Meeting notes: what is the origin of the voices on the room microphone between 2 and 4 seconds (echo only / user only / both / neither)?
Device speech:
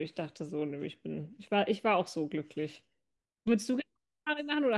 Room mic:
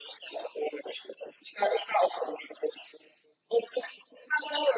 echo only